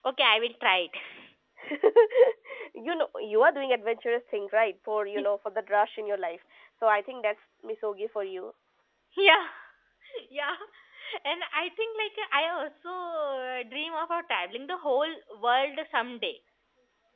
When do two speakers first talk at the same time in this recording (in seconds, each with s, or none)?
none